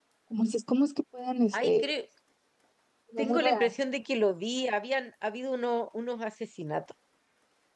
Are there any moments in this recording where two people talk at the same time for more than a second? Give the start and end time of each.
none

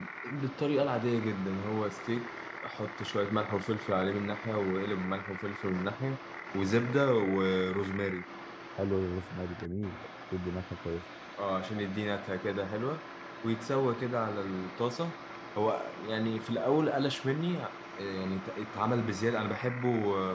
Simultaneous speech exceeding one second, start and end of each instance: none

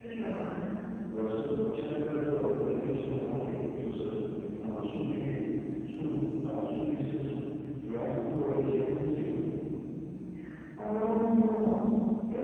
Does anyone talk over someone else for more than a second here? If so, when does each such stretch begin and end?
none

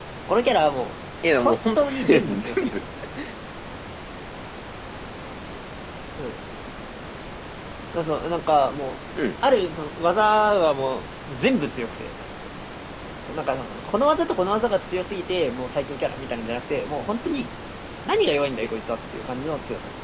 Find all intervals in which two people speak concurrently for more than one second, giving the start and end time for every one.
1.3-2.8

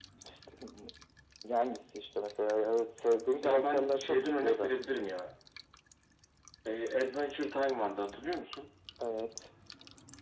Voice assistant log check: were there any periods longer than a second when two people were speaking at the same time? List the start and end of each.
3.4-4.7

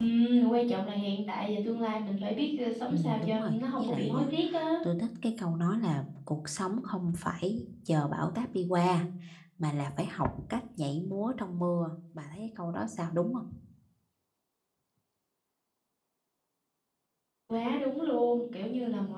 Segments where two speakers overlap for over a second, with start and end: 2.9-4.3

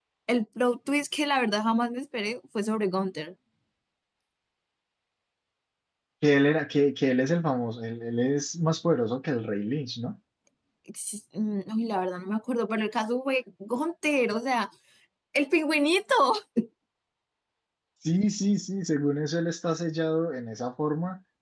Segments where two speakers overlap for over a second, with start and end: none

